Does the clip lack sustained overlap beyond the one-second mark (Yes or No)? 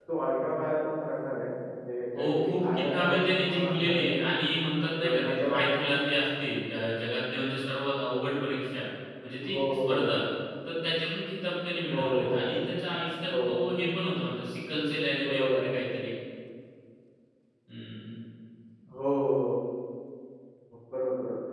No